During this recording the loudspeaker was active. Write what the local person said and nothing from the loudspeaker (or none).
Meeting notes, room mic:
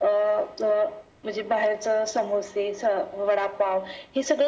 none